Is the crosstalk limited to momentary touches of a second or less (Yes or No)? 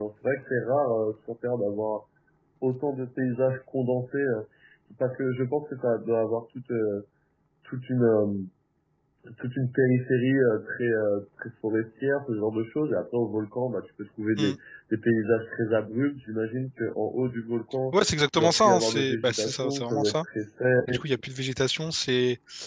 No